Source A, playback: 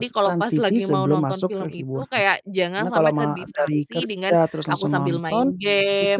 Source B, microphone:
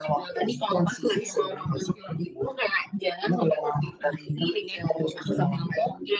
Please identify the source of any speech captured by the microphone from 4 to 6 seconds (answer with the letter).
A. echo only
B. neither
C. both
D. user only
A